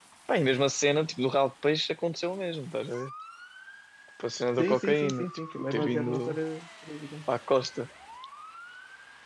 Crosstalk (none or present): present